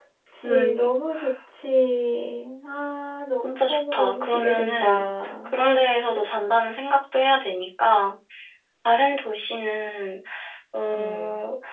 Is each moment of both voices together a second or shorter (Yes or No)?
No